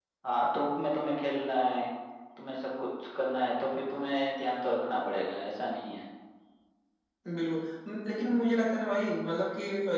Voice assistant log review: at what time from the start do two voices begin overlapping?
none

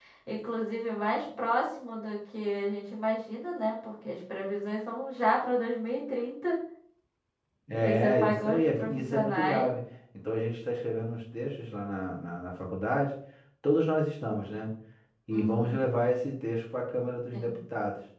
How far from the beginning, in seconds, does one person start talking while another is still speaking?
7.8 s

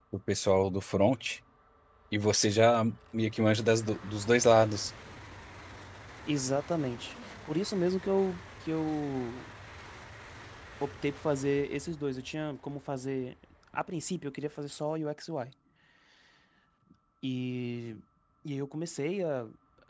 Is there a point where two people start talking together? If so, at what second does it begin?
none

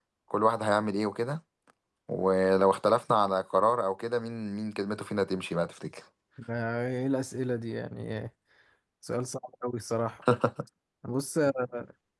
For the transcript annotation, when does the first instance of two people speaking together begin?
none

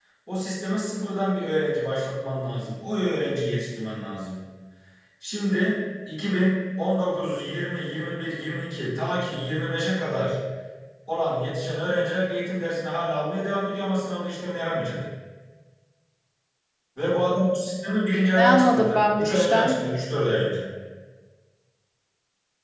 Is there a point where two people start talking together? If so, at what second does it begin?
18.3 s

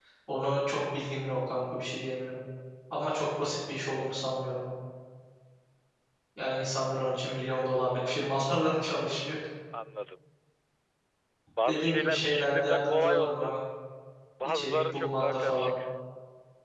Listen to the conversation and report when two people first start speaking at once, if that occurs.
11.7 s

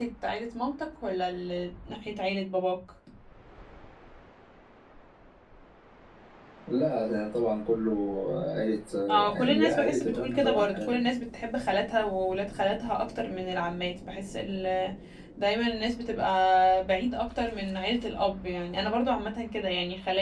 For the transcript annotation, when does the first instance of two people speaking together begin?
9.1 s

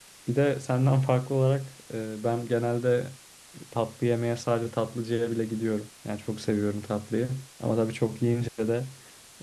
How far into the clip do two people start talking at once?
none

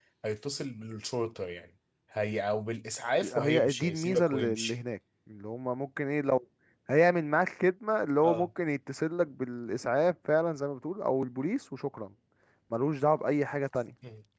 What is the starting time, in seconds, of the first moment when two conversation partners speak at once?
3.2 s

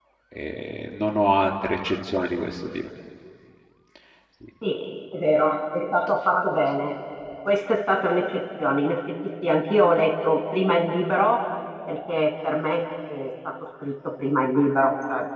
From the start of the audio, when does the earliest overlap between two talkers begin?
none

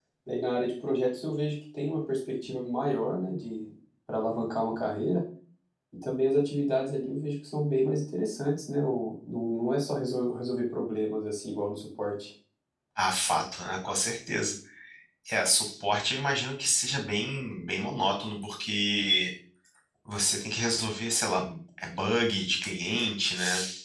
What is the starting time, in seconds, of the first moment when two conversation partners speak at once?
none

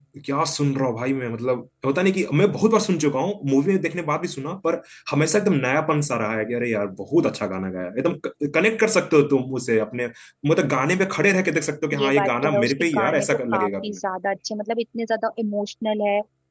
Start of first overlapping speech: 11.9 s

